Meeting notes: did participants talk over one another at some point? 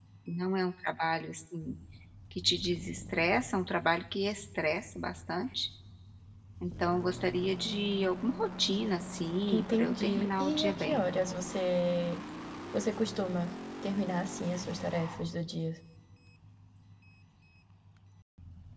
Yes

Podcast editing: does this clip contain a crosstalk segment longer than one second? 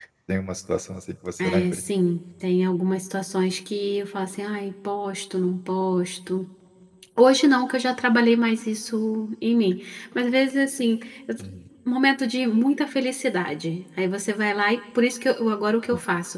No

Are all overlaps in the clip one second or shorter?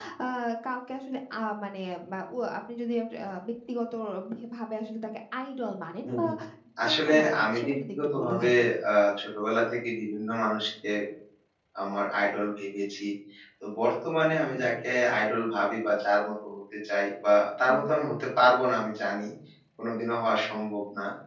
No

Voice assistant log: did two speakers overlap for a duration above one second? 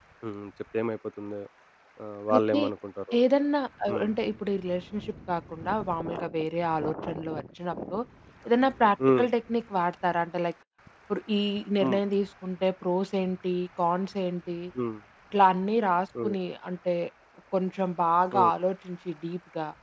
No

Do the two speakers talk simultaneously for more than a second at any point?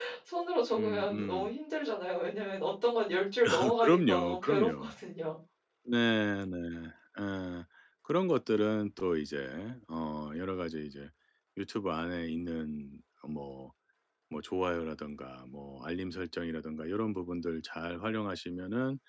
Yes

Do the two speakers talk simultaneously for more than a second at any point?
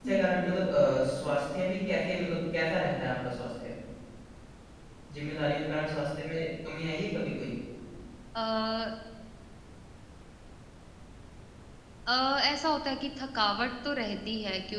No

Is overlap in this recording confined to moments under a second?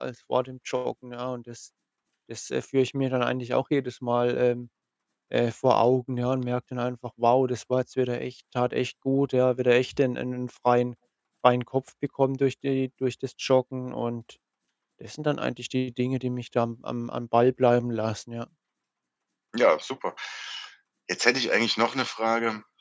Yes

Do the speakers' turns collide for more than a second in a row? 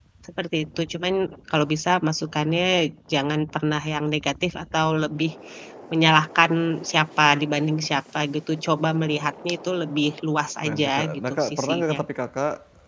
Yes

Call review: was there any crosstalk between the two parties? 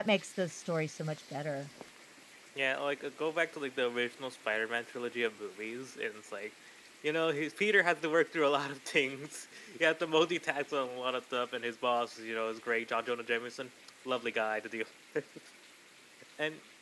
No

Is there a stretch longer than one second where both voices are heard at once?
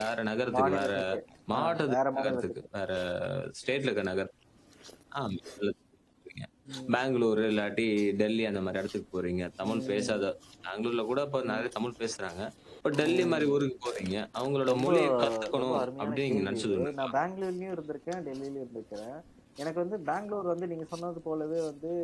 Yes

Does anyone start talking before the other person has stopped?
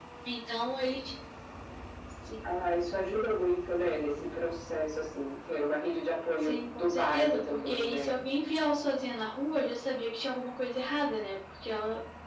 Yes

